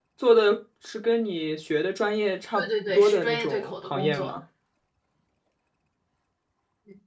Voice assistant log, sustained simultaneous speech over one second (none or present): present